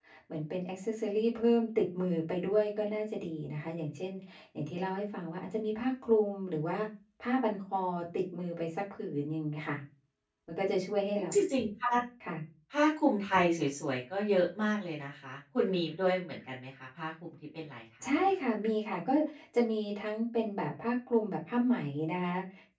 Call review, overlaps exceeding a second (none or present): none